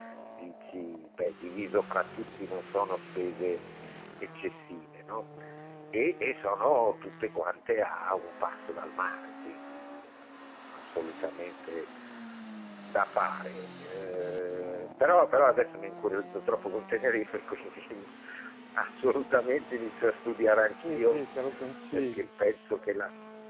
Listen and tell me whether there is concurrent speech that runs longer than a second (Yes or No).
No